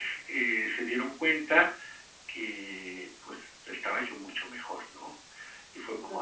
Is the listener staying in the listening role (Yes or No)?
Yes